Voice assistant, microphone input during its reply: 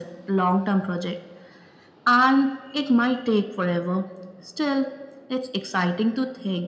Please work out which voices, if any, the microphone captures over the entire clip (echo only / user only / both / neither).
echo only